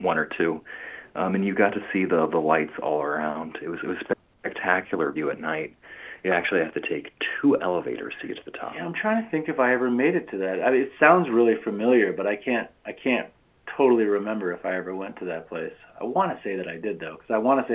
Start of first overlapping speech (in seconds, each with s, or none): none